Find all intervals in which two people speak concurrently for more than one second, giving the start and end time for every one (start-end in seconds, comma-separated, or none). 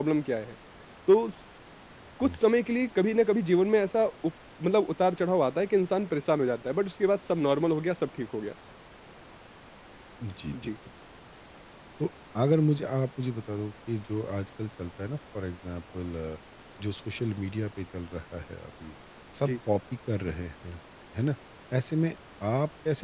none